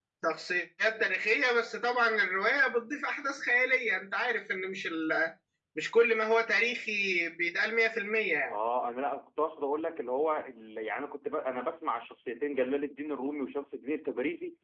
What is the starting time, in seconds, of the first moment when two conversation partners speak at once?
none

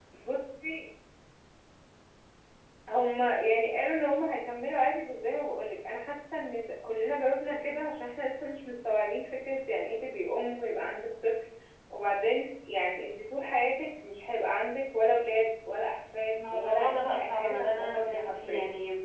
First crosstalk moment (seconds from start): 16.4 s

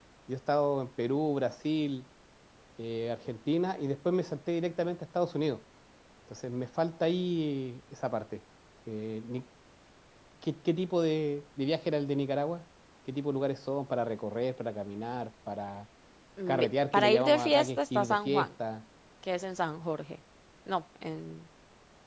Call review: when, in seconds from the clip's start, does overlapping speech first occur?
16.5 s

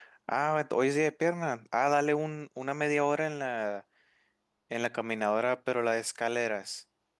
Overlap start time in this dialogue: none

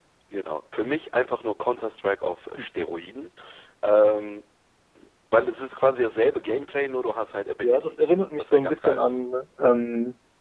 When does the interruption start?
7.6 s

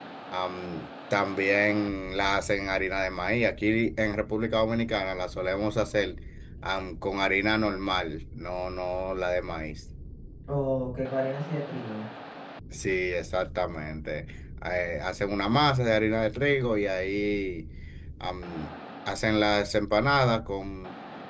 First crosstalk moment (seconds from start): none

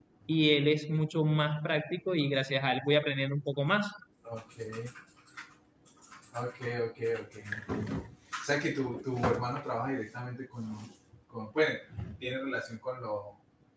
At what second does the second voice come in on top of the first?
none

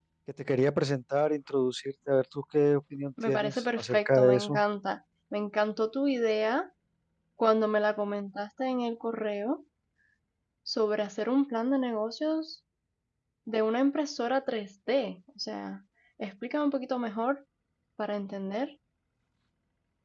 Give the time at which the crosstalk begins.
3.2 s

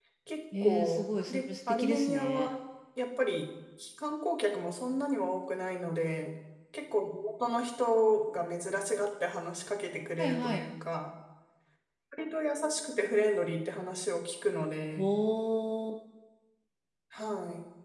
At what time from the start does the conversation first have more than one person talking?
0.6 s

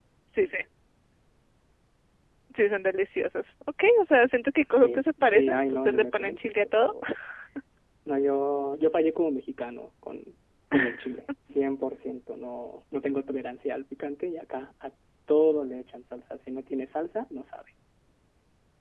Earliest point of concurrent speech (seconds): 4.8 s

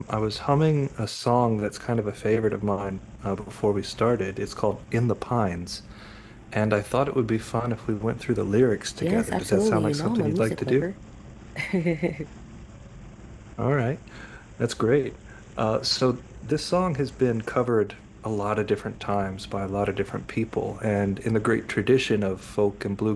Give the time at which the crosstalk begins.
9.0 s

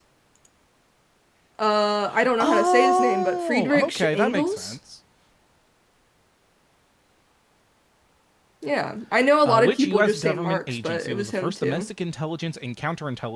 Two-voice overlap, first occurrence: 2.4 s

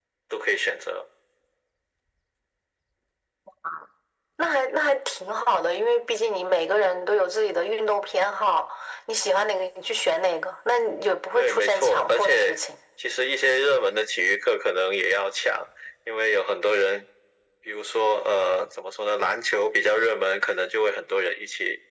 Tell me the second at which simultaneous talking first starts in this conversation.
11.4 s

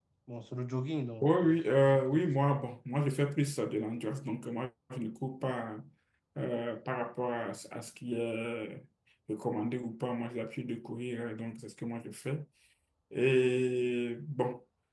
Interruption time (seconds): 1.2 s

